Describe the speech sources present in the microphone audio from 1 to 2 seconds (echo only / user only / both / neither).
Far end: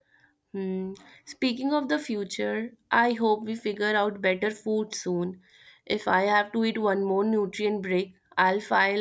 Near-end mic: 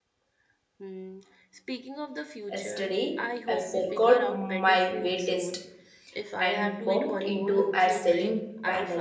echo only